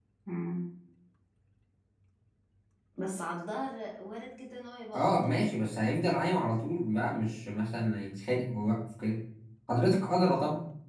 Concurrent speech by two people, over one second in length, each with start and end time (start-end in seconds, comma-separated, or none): none